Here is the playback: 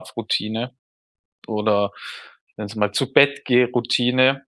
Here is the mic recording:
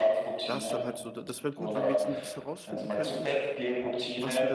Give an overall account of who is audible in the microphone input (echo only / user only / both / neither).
both